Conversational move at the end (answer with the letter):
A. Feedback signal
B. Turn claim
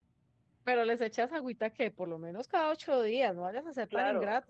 B